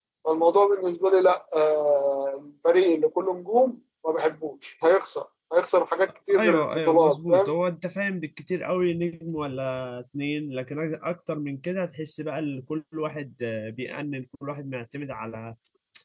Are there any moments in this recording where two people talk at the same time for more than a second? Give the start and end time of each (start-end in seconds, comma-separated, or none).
6.3-7.5